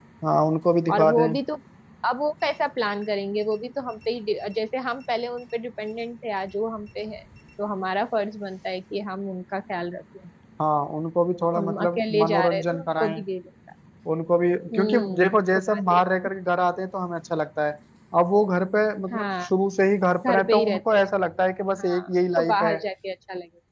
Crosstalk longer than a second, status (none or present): present